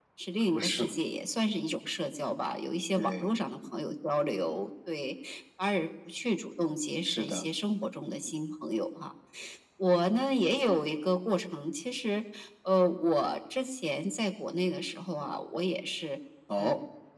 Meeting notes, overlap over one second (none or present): none